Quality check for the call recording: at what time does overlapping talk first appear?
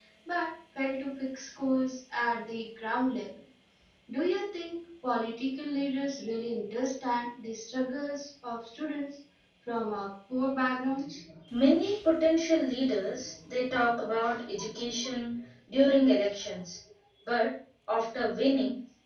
none

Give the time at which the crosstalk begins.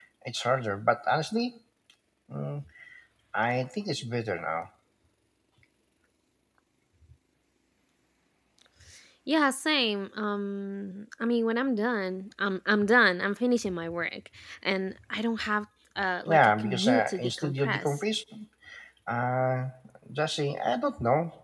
16 s

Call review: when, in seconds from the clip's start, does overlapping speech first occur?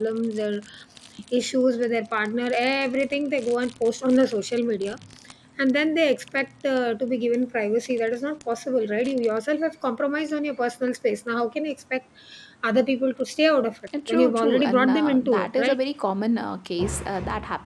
14 s

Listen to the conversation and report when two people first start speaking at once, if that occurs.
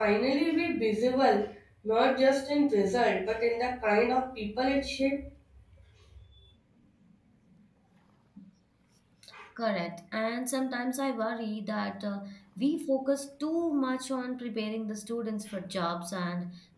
none

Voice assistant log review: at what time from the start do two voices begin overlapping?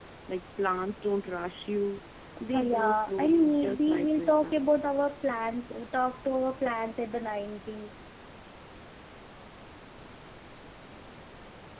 3 s

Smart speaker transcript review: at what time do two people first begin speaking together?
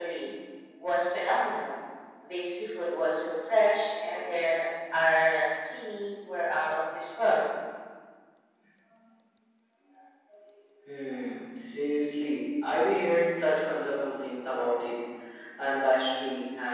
none

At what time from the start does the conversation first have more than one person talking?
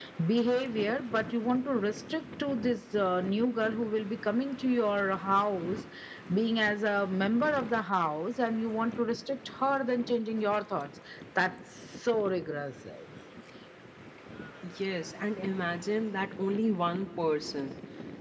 none

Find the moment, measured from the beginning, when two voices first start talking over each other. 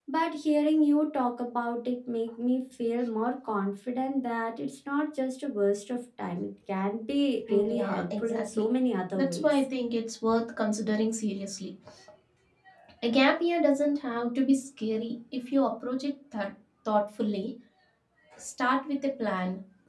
7 s

